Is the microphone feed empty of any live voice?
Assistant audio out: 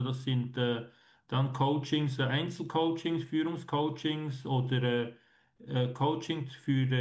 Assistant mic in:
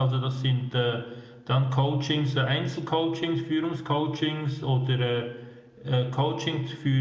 Yes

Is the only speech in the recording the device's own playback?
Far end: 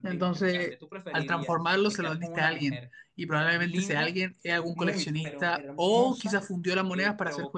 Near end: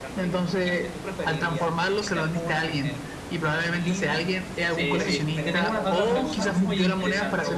No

